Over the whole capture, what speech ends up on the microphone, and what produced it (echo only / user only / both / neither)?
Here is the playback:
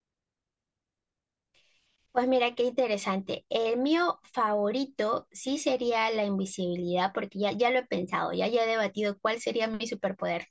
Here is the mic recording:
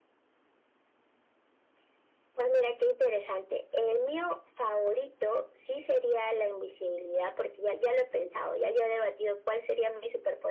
echo only